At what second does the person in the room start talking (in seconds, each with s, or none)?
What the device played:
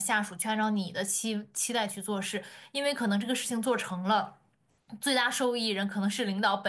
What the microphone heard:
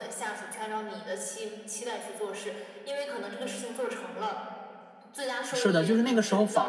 5.5 s